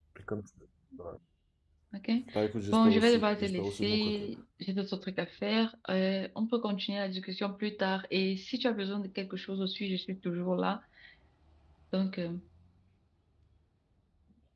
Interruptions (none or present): present